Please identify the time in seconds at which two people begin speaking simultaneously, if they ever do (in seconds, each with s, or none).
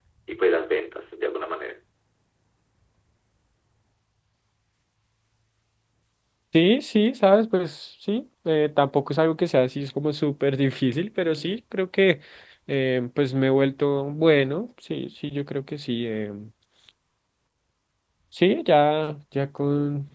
none